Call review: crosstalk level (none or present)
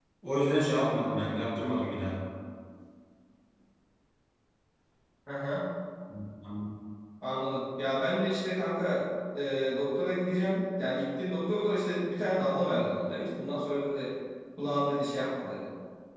none